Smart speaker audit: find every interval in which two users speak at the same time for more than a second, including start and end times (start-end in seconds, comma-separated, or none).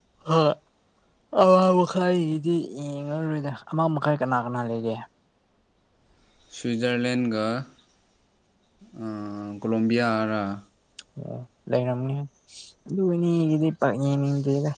none